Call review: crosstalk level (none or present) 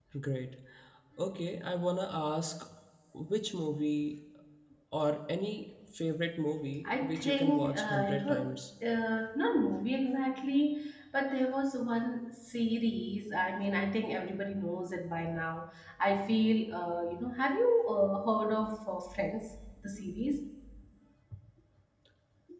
present